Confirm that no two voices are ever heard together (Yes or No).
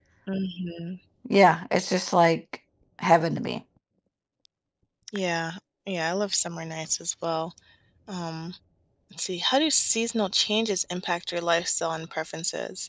Yes